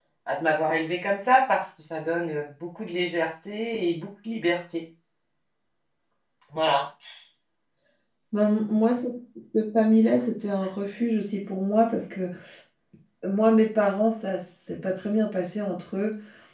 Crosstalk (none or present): none